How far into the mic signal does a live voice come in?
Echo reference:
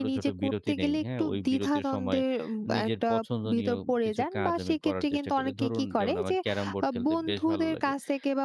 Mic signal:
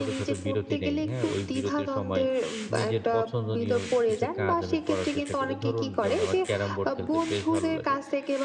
none

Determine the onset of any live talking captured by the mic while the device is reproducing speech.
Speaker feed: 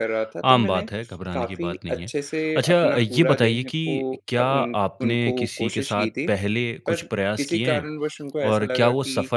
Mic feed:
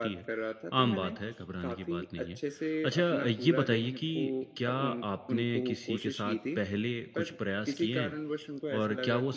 none

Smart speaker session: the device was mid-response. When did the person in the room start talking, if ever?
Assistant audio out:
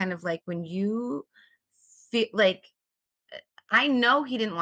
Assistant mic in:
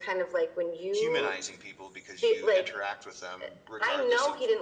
0.9 s

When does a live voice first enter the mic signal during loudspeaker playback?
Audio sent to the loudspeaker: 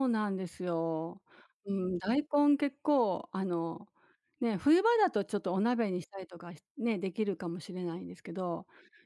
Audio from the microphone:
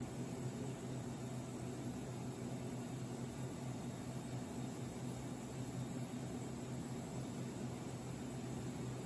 none

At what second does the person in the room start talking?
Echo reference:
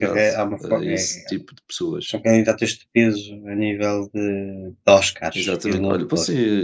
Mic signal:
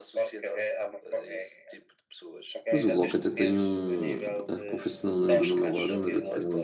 2.7 s

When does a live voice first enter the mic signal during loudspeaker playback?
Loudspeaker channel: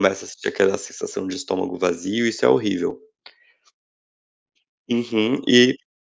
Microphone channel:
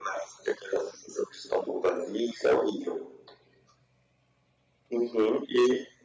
none

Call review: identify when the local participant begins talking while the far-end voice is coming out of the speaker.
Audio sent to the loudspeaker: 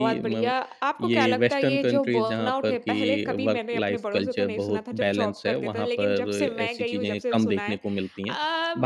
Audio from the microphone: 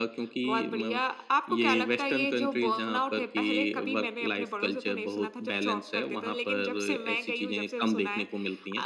none

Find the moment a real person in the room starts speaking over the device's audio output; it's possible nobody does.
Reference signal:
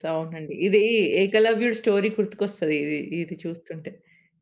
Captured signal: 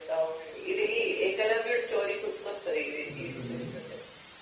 3.1 s

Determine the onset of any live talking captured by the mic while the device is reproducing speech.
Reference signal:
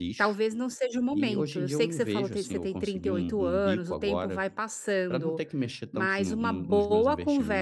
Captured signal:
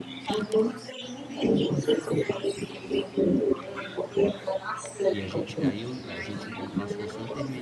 5.1 s

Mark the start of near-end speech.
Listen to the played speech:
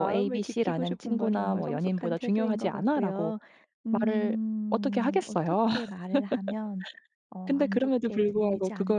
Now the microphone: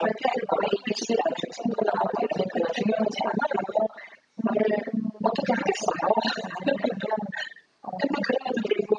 none

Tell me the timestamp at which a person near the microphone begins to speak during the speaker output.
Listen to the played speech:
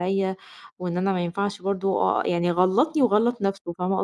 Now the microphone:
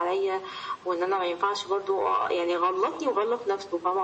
none

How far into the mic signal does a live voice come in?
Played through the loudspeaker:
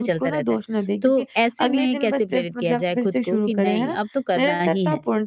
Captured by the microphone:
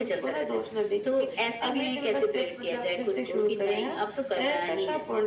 none

